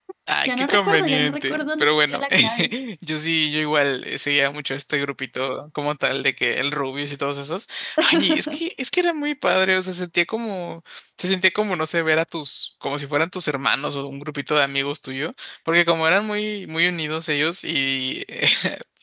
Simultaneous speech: Yes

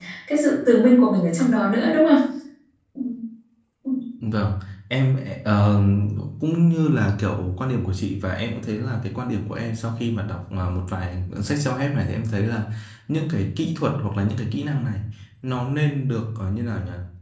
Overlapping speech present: No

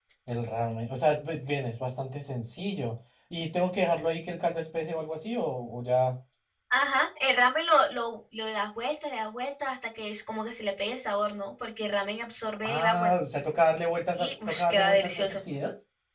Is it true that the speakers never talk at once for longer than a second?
No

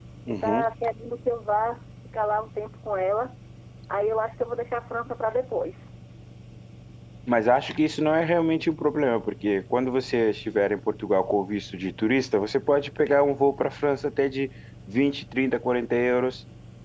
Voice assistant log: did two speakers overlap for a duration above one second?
No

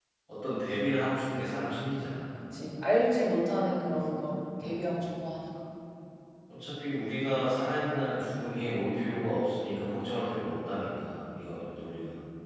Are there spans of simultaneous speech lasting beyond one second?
No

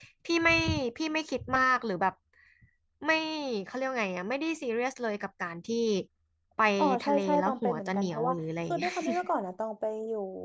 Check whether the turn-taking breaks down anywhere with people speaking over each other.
Yes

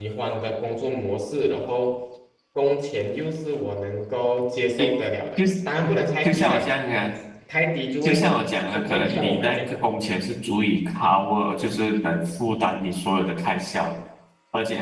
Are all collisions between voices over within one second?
No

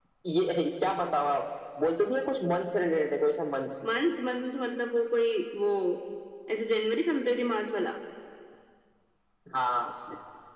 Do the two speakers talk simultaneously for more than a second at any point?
No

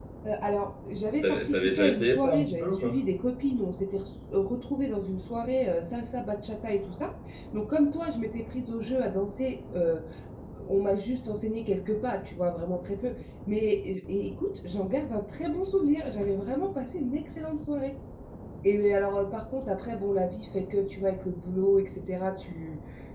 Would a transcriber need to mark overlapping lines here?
Yes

